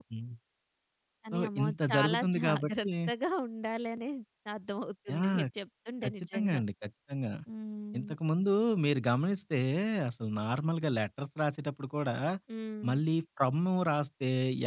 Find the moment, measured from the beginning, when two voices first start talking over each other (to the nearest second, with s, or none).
1 s